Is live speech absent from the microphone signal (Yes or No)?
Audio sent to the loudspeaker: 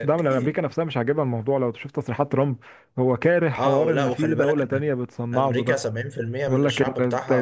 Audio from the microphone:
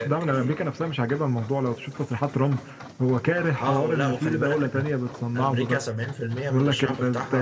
Yes